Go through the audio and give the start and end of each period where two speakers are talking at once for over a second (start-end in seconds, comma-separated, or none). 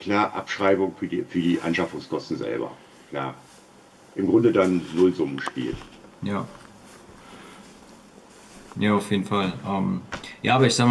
none